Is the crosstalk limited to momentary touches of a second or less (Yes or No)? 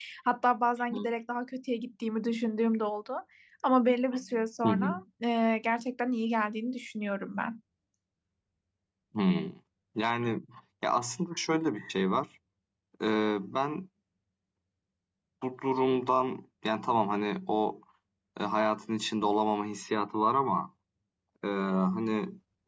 Yes